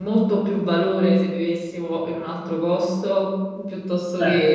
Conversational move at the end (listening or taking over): taking over